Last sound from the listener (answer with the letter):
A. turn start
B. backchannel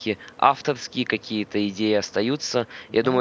B